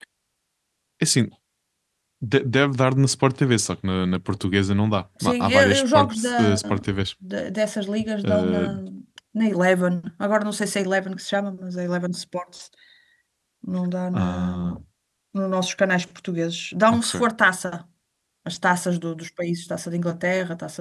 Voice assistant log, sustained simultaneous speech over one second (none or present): present